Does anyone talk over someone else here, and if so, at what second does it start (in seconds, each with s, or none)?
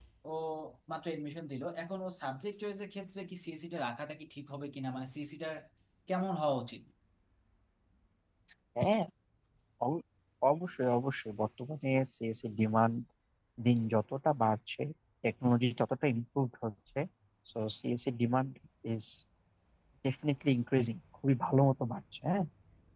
none